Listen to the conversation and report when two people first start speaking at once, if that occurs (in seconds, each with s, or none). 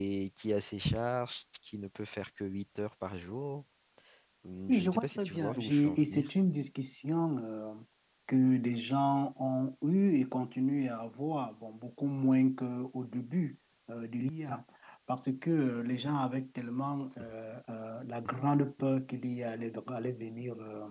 4.7 s